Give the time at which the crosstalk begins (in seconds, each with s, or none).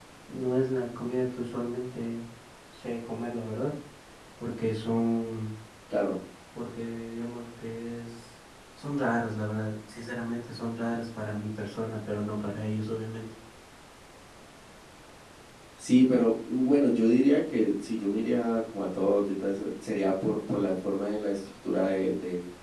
none